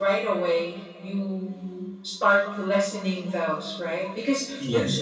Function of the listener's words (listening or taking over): listening